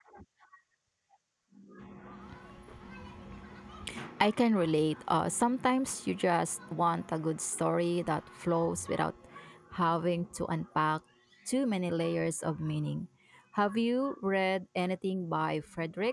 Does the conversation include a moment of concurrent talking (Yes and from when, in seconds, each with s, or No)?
No